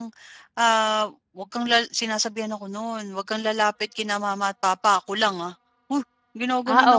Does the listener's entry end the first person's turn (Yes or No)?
Yes